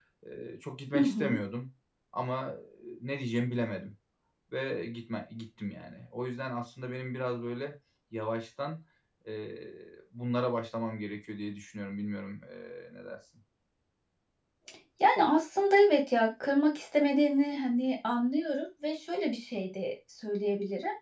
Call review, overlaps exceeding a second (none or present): none